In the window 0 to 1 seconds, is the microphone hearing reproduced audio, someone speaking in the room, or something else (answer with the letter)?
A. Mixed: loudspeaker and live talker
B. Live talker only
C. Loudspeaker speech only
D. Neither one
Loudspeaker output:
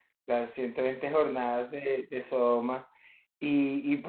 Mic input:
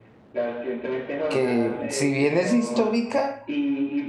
C